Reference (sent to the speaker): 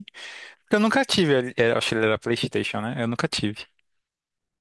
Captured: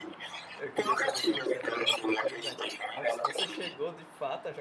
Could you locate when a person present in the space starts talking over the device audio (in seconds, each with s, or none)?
0.6 s